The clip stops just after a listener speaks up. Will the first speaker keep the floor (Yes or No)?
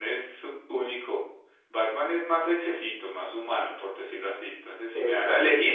Yes